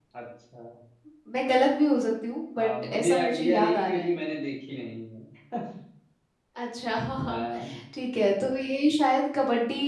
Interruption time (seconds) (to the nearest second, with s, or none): 3 s